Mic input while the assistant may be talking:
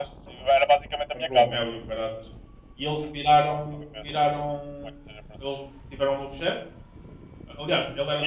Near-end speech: present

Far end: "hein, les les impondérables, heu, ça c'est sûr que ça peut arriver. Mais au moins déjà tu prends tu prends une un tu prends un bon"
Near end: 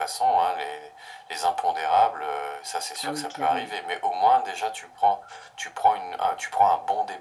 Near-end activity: present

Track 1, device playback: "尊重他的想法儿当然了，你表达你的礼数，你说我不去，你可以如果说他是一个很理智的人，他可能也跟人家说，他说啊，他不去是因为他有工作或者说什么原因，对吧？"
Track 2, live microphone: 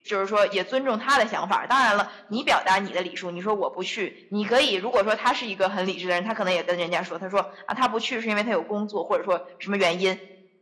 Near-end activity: none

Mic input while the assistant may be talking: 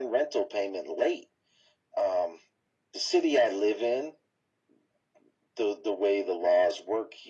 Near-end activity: none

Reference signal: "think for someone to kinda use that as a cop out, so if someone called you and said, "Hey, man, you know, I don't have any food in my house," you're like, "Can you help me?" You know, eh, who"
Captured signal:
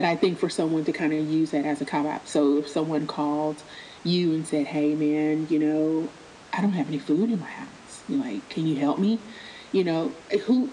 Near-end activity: none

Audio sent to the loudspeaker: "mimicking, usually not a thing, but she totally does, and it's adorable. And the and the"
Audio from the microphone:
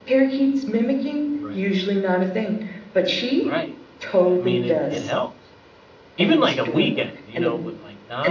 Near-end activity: present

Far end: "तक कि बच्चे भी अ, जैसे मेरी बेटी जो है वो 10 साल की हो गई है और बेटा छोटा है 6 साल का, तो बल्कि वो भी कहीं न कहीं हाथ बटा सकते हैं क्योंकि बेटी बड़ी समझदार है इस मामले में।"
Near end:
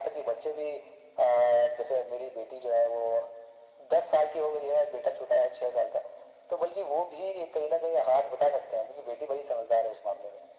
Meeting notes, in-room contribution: none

